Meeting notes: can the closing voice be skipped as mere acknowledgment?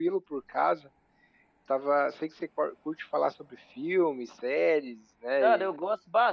No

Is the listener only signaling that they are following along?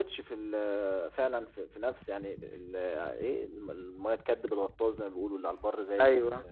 No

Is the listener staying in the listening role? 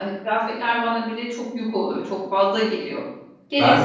No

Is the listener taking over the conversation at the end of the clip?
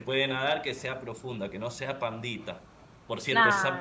No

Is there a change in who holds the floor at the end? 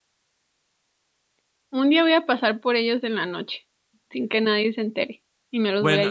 Yes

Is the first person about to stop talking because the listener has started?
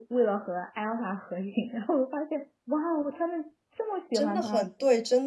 Yes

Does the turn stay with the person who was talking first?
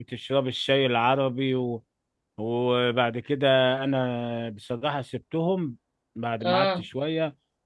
Yes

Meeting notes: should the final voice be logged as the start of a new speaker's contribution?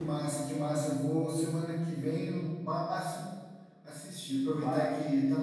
No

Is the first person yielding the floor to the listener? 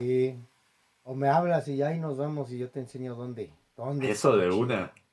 Yes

